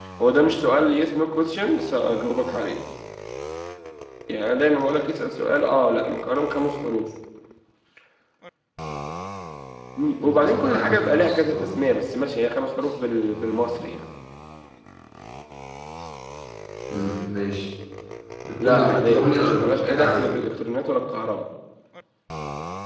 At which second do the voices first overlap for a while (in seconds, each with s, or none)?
10.2 s